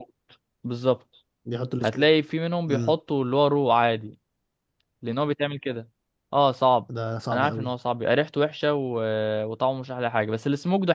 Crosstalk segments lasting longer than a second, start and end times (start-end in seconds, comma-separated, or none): none